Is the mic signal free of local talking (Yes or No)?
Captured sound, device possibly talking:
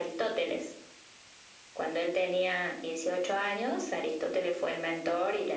Yes